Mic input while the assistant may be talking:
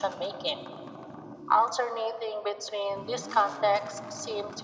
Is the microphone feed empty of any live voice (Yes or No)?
Yes